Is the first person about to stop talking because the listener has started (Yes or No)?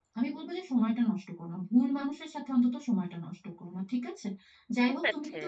No